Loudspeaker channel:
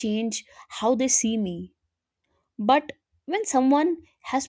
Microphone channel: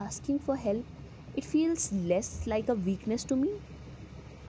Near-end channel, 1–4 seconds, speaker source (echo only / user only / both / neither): user only